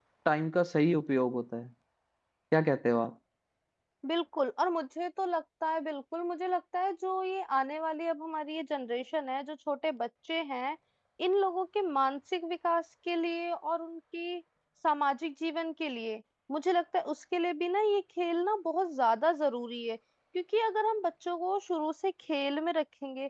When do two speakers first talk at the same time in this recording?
none

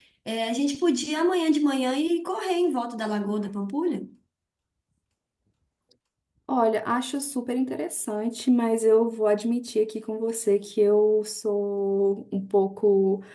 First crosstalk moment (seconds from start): none

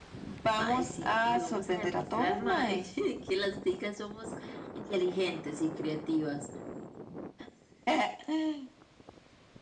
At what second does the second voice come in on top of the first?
0.6 s

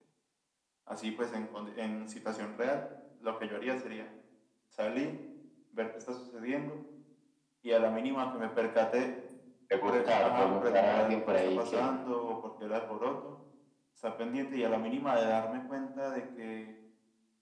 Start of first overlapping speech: 9.9 s

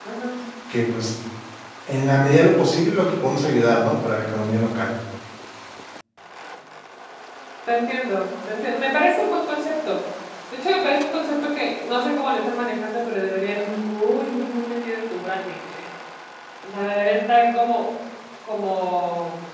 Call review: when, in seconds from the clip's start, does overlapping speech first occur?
none

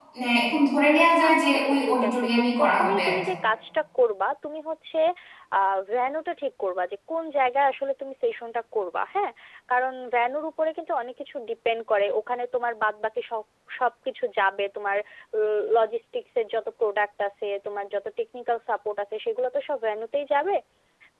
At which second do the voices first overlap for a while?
1.2 s

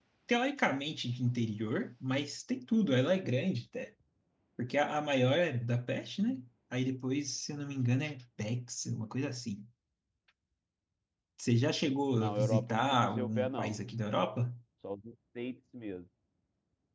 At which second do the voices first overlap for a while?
12.1 s

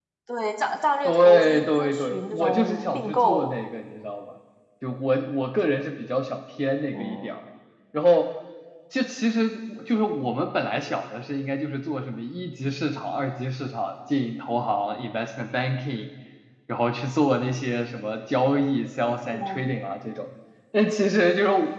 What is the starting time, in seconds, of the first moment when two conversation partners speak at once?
1.1 s

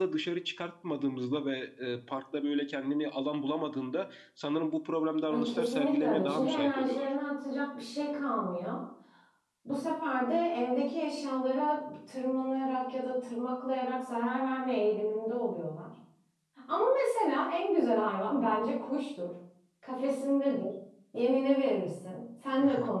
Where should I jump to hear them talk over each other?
5.3 s

